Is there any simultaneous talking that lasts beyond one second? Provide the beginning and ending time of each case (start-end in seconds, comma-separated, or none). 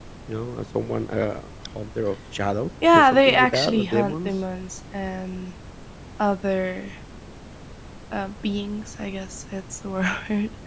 2.9-4.3